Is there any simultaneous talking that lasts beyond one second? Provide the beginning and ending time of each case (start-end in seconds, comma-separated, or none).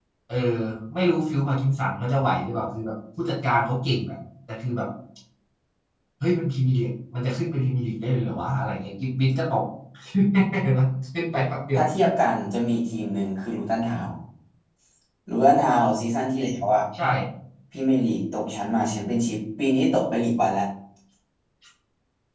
none